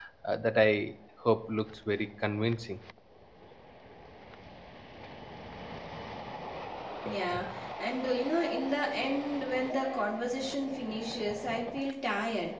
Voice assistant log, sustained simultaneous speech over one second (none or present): none